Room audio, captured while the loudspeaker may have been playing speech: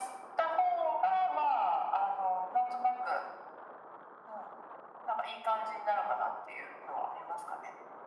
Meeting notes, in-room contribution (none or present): none